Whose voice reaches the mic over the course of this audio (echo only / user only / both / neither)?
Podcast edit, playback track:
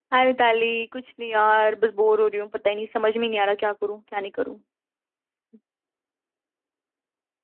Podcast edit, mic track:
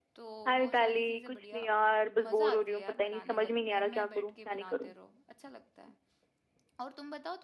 both